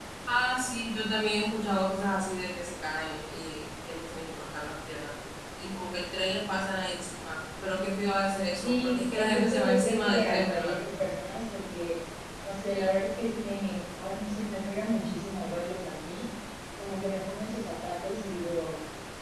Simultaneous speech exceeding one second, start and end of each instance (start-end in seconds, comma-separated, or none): 8.6-10.8